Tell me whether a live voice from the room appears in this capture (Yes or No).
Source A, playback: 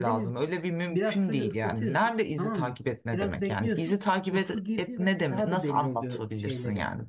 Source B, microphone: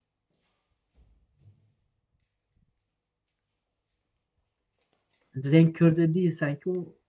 Yes